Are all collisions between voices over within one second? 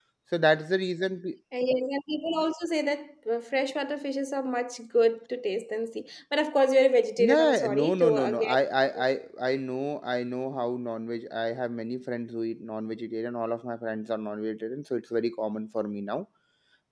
No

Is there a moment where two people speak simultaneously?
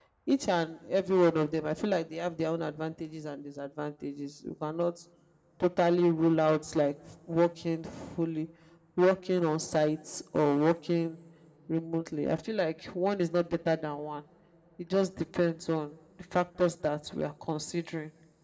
No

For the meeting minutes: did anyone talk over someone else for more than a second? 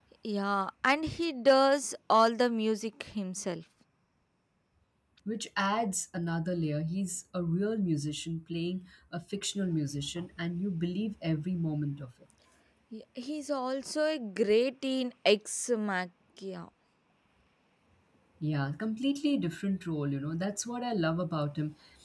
No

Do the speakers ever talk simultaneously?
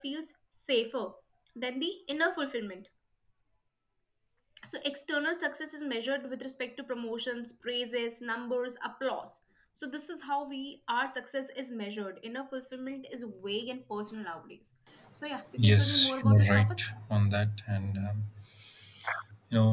Yes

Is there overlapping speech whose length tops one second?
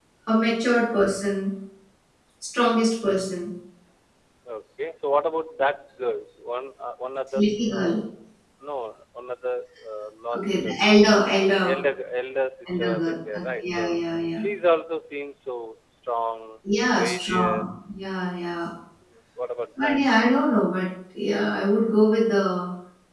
Yes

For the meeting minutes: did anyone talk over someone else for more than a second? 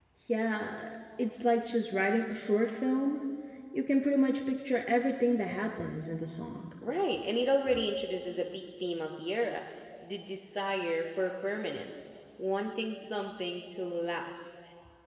No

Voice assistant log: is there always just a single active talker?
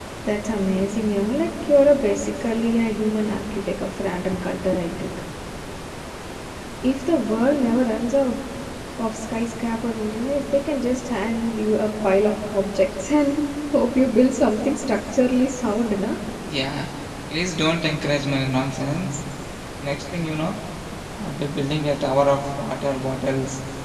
Yes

